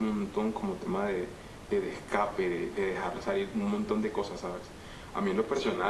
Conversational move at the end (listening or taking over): listening